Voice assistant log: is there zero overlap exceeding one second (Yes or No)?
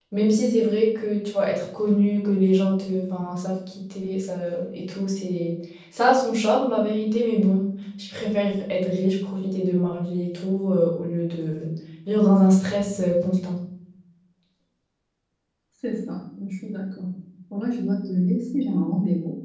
Yes